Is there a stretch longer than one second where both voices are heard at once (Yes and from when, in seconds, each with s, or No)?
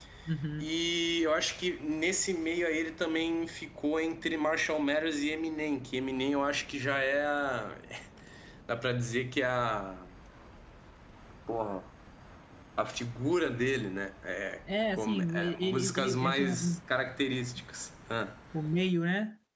Yes, from 14.9 s